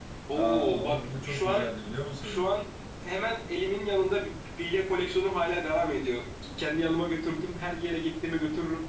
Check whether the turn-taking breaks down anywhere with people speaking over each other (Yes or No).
Yes